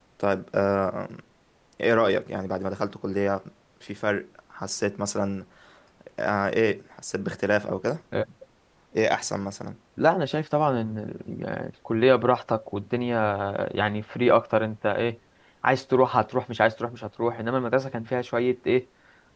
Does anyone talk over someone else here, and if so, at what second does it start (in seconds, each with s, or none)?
none